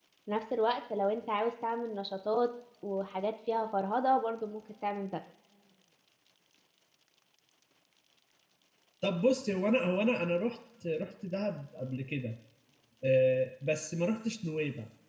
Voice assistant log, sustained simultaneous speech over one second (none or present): none